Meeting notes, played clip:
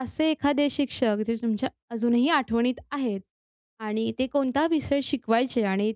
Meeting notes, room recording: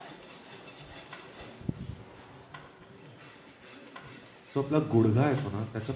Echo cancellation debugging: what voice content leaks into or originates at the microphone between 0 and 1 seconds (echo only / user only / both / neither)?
neither